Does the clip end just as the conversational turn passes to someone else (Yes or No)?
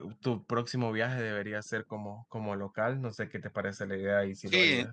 Yes